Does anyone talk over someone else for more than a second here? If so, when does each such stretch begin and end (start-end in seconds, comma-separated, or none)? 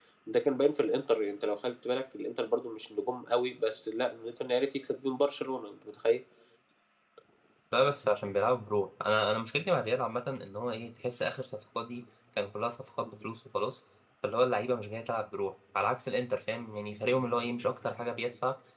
none